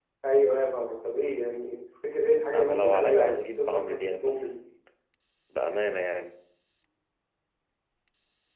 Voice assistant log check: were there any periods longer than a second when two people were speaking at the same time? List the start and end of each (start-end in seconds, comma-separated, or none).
2.5-4.6